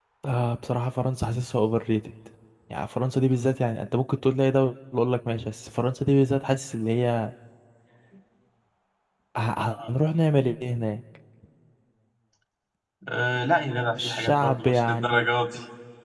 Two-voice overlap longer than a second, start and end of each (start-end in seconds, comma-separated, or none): 14.0-15.2